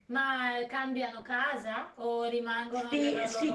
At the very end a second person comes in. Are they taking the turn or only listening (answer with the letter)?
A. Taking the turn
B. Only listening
A